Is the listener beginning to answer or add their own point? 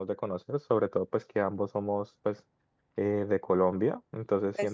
No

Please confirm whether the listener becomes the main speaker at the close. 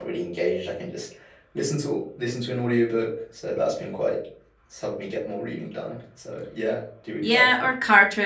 Yes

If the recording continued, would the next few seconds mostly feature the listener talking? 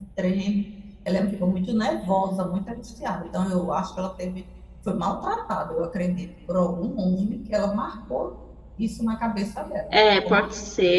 Yes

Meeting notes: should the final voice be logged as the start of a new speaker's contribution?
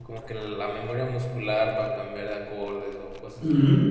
Yes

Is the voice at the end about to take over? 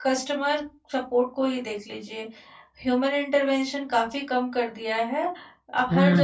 No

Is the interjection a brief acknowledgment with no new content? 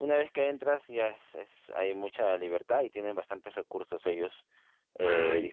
Yes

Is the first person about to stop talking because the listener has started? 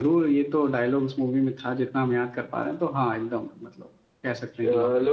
Yes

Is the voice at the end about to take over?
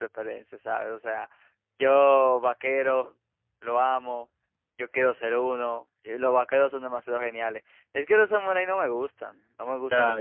Yes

